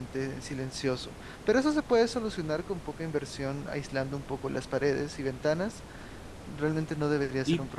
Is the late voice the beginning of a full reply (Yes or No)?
Yes